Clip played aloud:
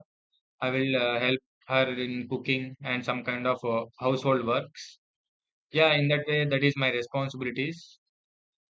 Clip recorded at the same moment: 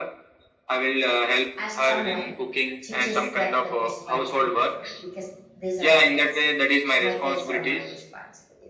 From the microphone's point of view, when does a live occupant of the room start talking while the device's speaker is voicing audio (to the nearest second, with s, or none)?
2 s